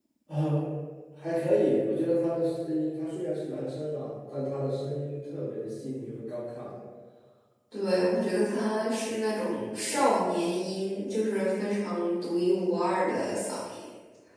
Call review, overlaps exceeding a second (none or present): none